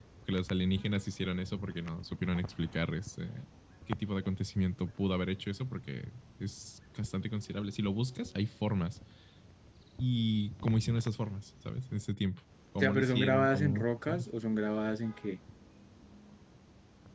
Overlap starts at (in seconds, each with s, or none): 12.8 s